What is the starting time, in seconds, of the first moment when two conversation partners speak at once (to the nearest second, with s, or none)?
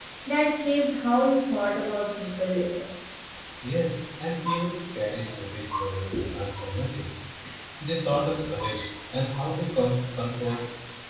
none